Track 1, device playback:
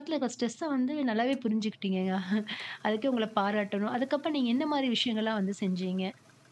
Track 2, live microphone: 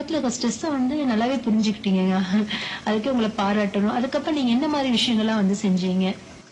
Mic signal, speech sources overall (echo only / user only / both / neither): echo only